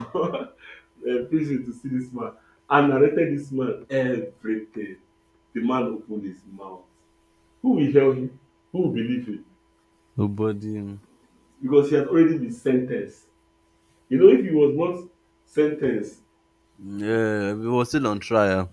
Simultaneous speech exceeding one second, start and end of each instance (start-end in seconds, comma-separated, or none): none